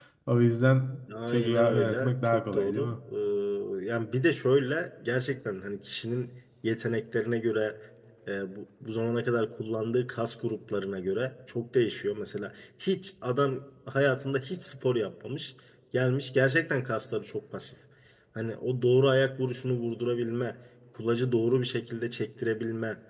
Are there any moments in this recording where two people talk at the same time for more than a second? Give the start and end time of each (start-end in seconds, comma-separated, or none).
1.3-2.9